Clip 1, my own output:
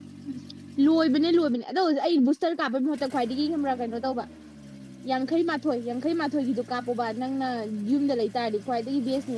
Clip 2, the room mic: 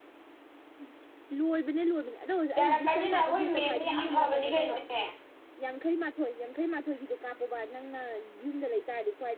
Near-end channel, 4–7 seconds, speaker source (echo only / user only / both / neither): both